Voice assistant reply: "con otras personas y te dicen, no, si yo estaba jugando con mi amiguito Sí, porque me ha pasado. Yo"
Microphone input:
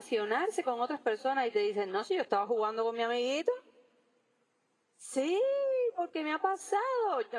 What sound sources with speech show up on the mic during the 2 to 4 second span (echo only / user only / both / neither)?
echo only